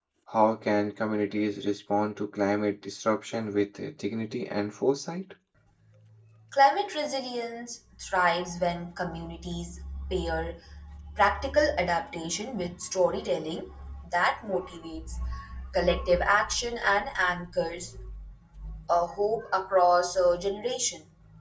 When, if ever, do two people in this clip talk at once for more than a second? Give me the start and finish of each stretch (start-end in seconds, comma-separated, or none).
none